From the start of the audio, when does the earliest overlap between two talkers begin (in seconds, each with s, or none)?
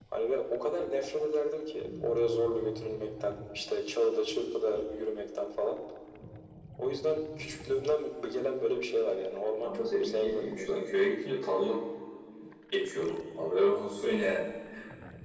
9.6 s